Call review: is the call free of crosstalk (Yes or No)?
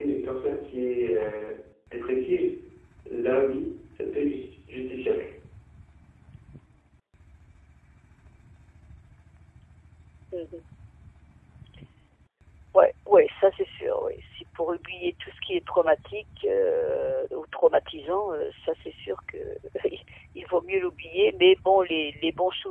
Yes